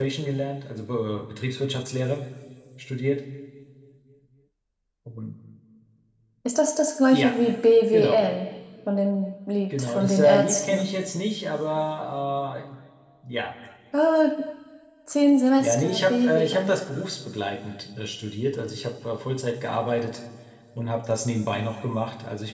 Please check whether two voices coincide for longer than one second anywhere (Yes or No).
Yes